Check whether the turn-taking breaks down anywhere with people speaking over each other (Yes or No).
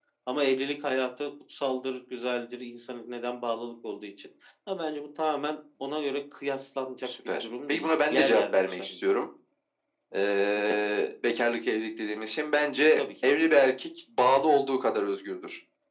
Yes